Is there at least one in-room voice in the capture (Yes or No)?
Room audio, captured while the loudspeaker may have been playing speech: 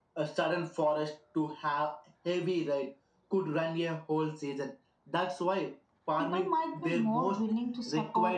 Yes